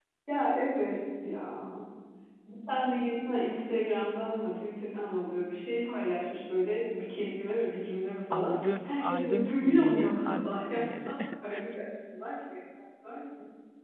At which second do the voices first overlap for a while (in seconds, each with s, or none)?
8.3 s